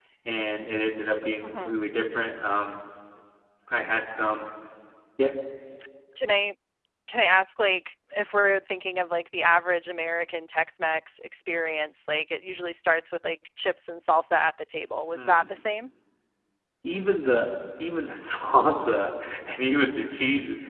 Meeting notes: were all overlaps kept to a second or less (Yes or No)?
Yes